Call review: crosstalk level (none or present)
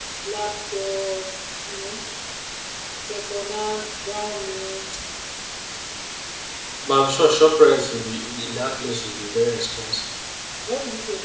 none